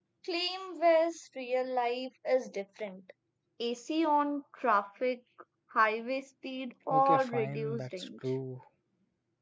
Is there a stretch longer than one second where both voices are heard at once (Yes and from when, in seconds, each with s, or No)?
Yes, from 6.9 s